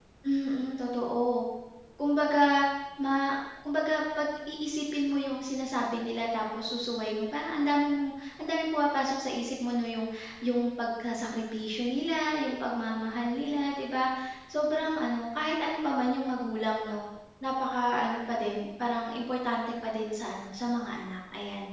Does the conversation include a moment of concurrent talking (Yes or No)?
No